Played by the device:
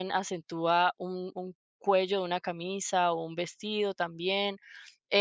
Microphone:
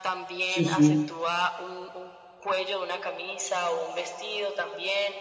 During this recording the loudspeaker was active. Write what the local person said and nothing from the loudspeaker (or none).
Sí, sí,